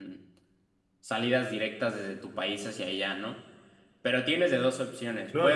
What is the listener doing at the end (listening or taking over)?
taking over